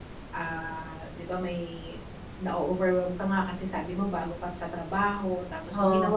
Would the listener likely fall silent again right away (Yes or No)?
Yes